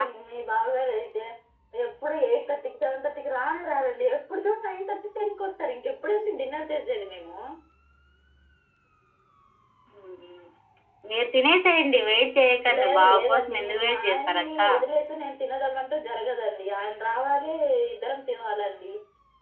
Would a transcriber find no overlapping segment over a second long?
No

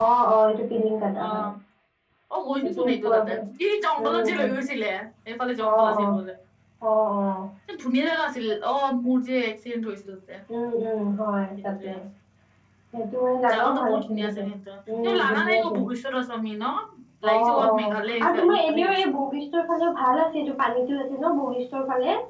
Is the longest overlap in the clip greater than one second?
Yes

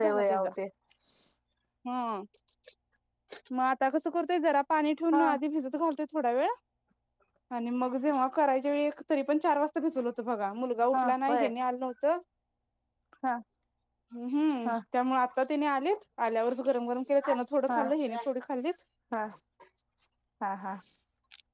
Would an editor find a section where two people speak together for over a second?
No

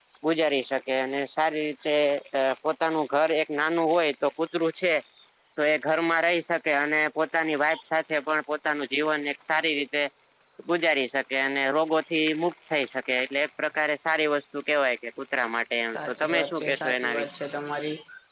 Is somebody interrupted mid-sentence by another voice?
Yes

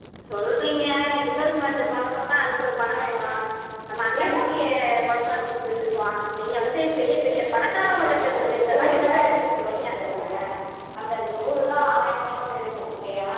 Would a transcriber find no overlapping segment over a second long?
No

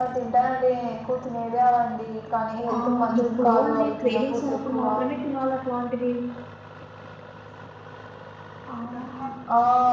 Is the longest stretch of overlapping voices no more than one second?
No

